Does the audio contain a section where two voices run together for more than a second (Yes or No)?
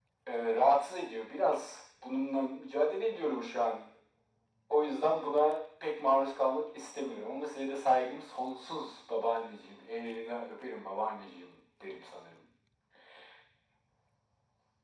No